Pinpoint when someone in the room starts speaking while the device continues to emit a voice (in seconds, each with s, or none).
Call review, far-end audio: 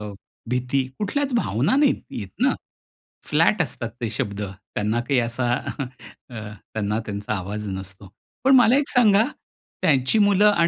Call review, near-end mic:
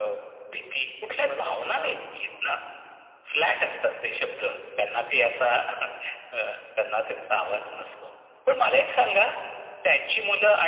1.3 s